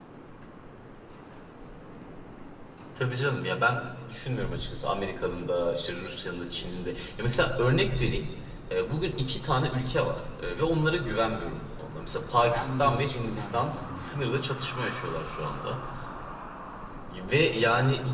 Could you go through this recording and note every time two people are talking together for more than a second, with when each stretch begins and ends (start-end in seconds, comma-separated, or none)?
12.5-14.3